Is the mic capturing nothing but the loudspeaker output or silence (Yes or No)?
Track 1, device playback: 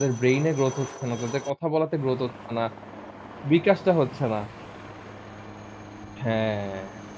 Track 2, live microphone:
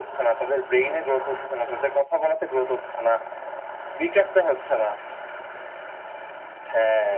Yes